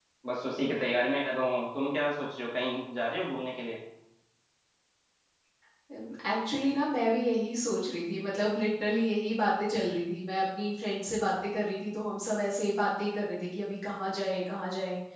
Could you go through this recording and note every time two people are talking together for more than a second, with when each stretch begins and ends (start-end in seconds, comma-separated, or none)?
none